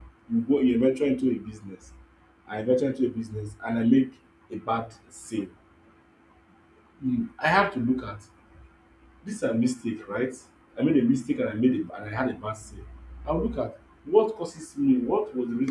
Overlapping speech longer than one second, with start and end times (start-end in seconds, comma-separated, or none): none